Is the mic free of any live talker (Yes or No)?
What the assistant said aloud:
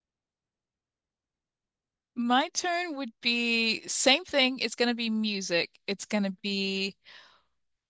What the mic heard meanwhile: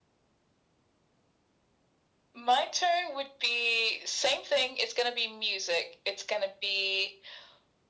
Yes